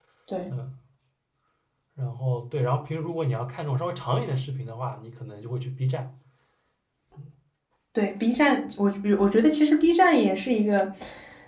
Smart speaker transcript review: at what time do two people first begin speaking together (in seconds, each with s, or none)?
none